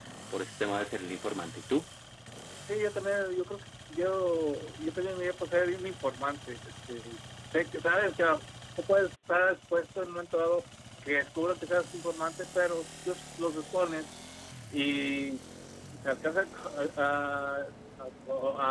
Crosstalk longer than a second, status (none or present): none